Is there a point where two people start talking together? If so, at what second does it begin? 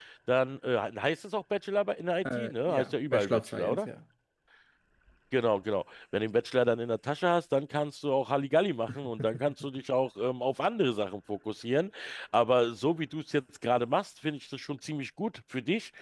2 s

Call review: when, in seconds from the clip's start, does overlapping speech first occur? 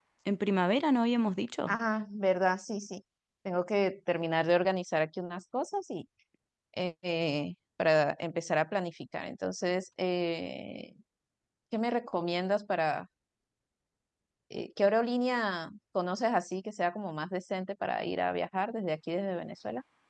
none

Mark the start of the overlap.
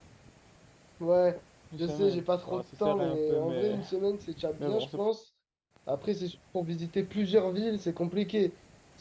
2 s

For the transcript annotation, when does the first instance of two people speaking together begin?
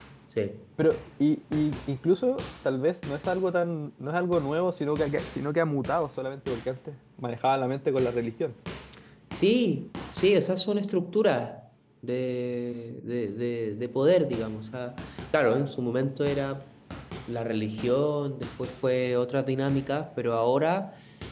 none

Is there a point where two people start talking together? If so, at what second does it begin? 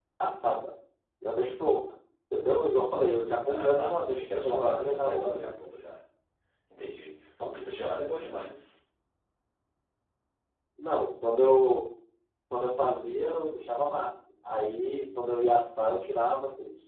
3 s

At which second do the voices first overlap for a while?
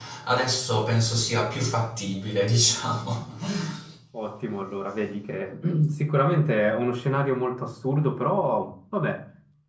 none

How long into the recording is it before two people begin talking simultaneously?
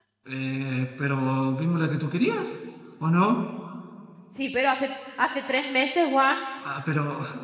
none

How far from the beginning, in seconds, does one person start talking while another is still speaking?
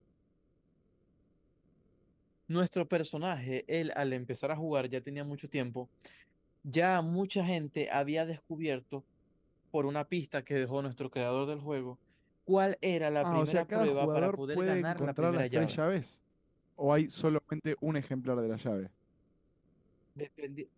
13 s

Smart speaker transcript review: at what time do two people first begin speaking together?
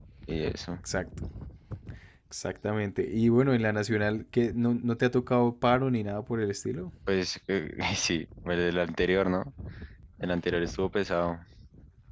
none

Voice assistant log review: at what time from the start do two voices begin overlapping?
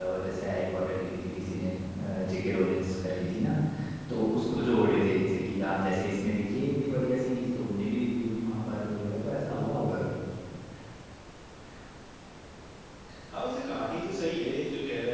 none

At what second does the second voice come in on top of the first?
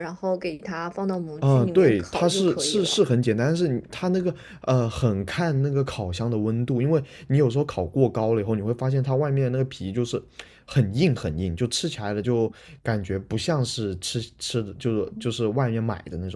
1 s

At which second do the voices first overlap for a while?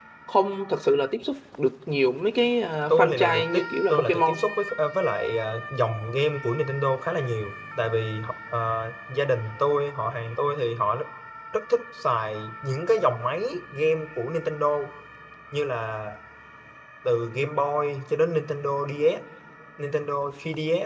3 s

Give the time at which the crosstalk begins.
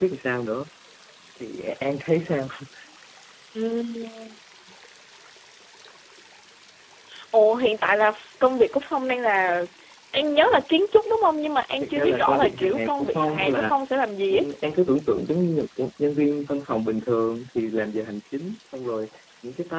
12 s

